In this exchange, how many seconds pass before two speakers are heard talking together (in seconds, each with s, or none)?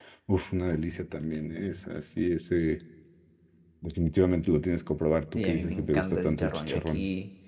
5.3 s